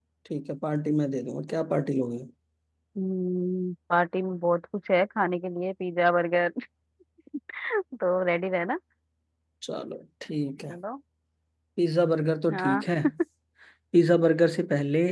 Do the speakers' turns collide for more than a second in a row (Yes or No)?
No